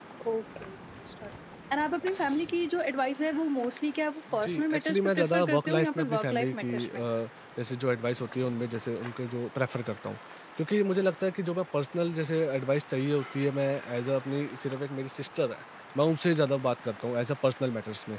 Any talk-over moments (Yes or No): Yes